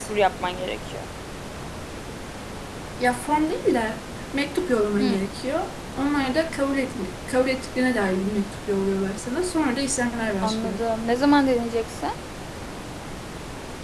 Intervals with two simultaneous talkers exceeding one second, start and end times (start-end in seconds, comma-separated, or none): none